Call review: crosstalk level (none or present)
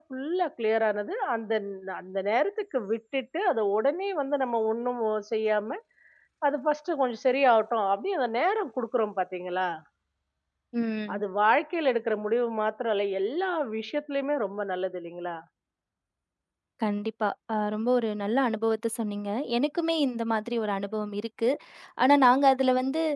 none